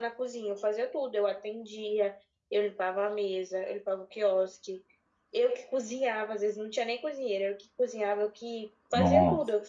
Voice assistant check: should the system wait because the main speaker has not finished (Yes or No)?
Yes